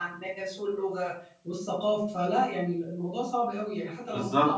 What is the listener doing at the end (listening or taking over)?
taking over